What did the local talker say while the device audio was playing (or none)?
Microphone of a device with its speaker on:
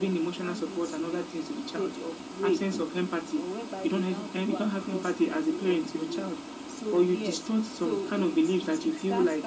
none